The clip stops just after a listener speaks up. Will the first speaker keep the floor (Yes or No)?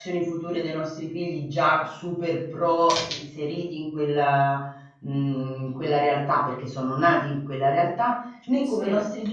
Yes